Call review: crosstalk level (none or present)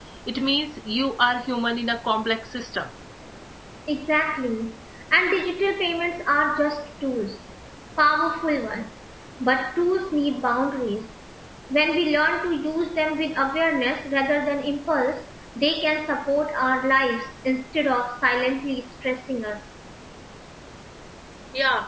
none